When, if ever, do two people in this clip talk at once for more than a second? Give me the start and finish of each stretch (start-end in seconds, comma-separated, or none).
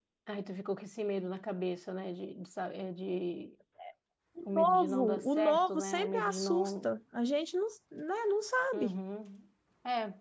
4.5-6.9